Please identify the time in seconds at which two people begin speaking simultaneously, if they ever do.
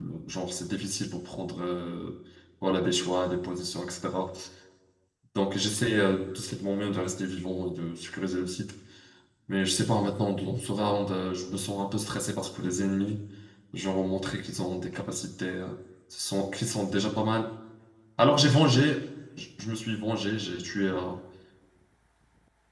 none

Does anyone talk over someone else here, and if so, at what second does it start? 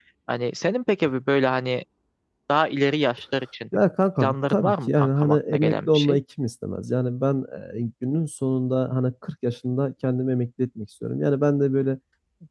4.2 s

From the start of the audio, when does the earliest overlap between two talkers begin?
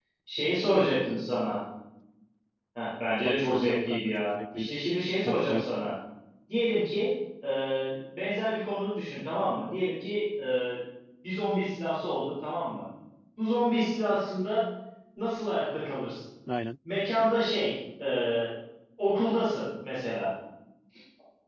3.2 s

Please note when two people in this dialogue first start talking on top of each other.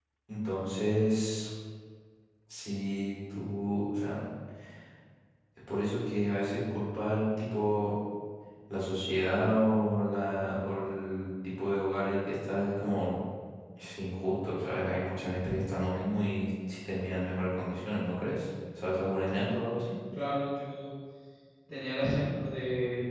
none

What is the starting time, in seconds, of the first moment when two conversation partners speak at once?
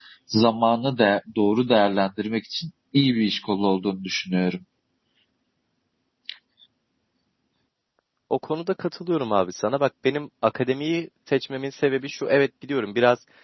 none

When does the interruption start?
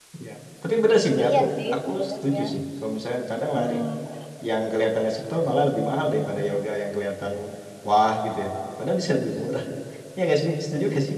1.2 s

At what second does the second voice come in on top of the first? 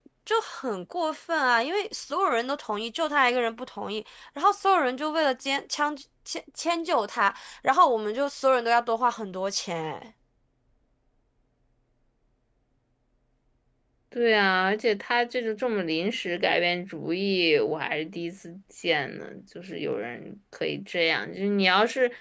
none

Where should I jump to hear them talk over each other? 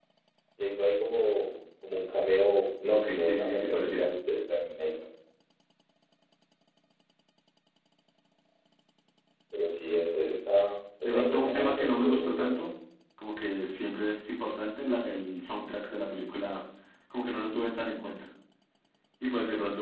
2.9 s

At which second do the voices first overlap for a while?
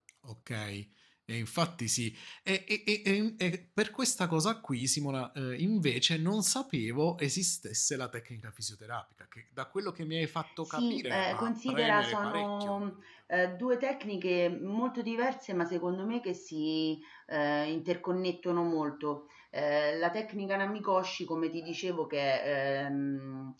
10.7 s

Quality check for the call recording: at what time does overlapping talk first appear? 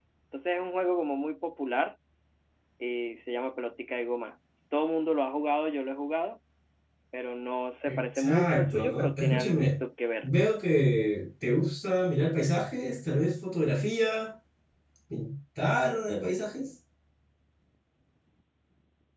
7.9 s

